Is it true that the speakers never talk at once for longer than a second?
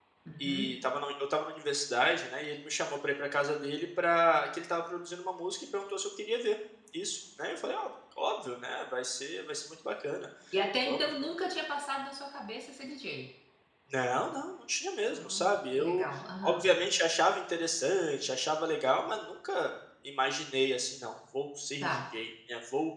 Yes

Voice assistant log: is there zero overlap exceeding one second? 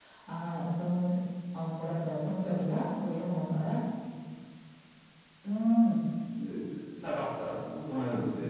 Yes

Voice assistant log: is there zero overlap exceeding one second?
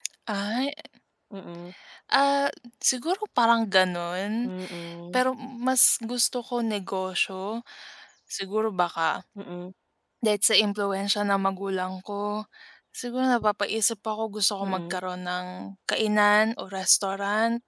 Yes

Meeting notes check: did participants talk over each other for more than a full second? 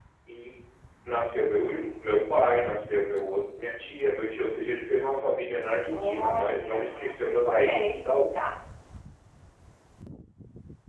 Yes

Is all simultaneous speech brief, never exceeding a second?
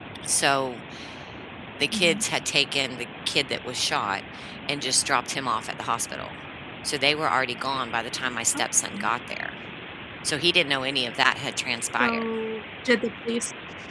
Yes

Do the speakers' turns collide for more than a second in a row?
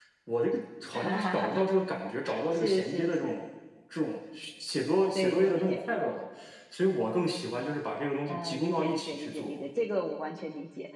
Yes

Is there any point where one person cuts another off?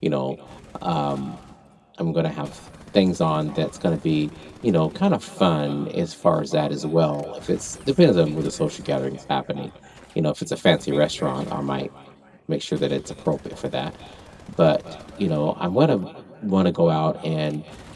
No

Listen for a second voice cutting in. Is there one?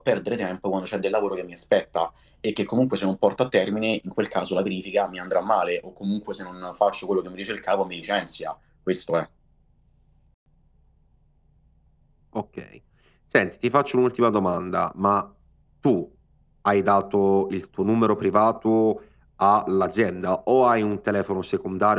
No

